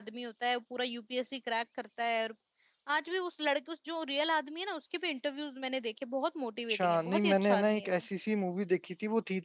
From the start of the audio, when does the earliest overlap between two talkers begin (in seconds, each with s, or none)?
6.7 s